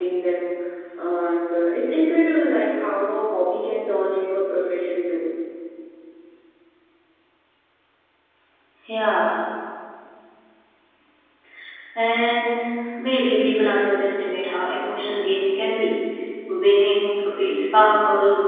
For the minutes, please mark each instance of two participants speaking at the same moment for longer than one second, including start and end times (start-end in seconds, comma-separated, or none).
none